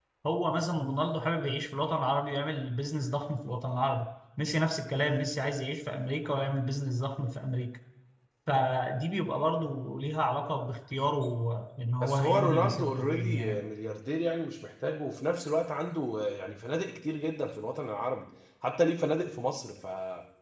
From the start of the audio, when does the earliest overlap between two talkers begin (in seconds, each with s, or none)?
12.0 s